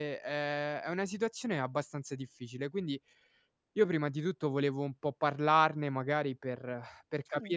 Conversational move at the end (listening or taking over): listening